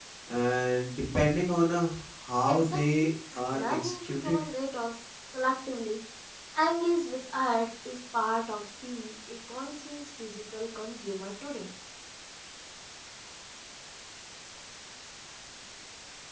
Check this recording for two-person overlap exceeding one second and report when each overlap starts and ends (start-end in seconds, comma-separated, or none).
2.5-4.4